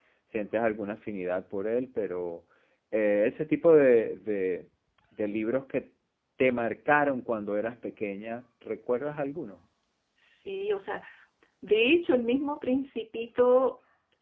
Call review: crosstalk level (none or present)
none